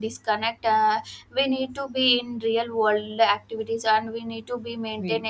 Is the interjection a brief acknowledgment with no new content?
Yes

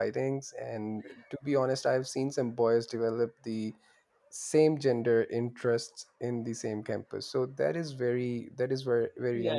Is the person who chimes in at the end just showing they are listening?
No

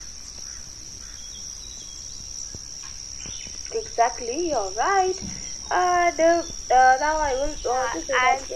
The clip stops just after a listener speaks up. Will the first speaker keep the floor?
No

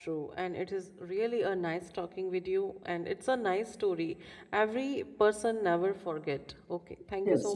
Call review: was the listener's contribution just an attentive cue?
No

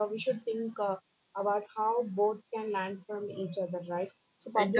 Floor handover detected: No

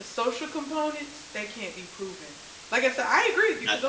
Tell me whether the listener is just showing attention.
Yes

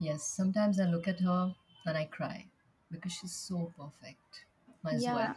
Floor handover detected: Yes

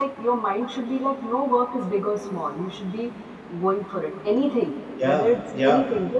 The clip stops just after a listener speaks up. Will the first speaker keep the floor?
Yes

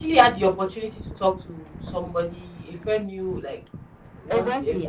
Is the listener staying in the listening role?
No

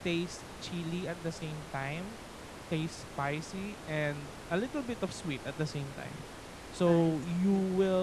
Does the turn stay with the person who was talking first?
Yes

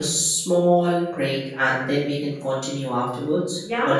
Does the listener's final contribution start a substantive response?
Yes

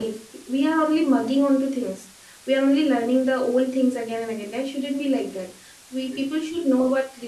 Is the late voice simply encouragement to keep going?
Yes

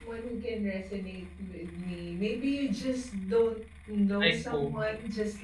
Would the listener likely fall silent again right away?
Yes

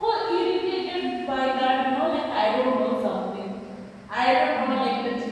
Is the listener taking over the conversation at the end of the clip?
No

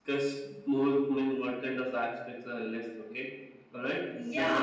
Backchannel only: No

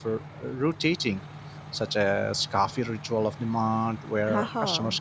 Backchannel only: Yes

